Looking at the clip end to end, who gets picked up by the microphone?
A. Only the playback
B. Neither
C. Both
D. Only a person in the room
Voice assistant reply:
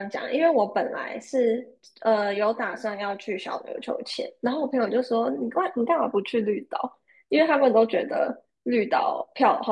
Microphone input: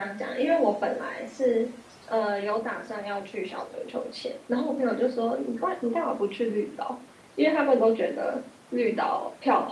A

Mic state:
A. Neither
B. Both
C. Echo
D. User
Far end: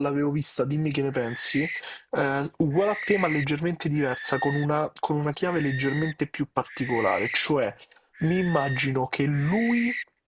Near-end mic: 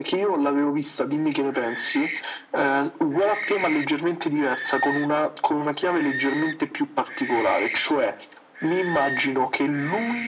C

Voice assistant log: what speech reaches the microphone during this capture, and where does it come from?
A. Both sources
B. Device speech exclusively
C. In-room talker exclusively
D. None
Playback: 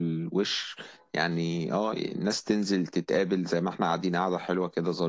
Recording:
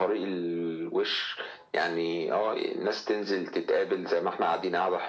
B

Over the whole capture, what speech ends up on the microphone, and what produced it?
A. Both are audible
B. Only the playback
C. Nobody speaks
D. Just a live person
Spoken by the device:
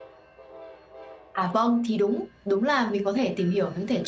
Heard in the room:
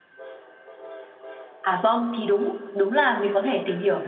B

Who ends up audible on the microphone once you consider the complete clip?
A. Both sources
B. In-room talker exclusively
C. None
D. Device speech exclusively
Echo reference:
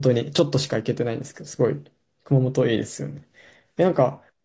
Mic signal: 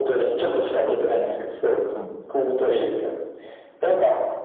A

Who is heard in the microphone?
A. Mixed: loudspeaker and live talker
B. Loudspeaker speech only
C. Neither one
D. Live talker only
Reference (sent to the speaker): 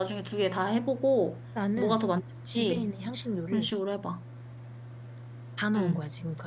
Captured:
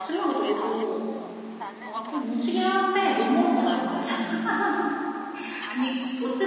A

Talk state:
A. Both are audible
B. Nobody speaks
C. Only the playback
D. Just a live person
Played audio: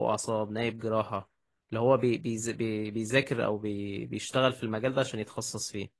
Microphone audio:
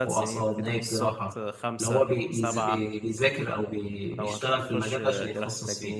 A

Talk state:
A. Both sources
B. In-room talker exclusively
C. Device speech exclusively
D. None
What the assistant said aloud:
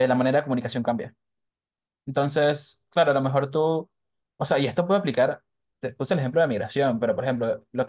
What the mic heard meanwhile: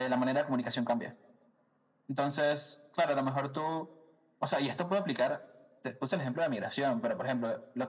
C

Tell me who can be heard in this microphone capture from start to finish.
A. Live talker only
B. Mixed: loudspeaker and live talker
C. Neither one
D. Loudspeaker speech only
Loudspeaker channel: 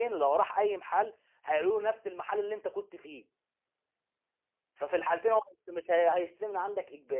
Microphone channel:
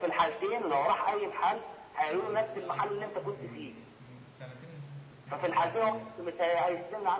B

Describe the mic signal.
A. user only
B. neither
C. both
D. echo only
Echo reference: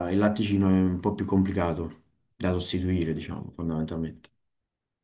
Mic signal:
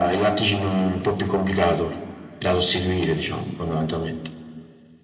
D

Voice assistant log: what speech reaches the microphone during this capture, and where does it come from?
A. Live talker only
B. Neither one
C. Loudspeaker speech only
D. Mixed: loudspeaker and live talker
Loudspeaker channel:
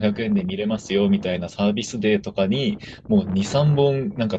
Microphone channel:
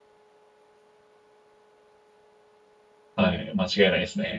A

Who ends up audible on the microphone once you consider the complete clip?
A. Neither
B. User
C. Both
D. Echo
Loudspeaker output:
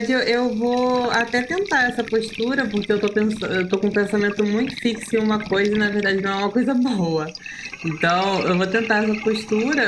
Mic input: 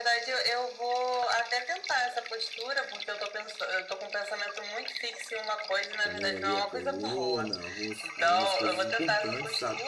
C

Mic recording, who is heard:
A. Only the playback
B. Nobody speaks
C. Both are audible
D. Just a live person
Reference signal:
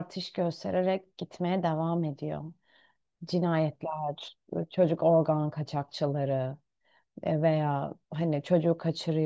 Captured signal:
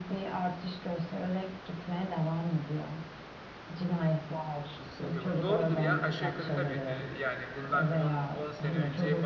C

